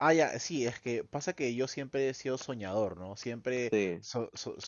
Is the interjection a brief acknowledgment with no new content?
Yes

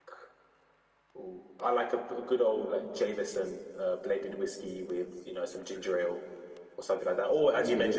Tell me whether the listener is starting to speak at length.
No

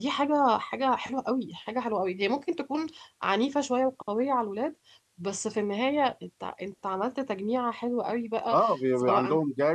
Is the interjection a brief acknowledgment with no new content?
No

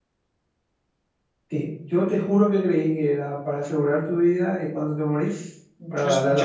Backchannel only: No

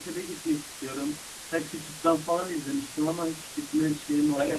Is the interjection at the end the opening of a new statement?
Yes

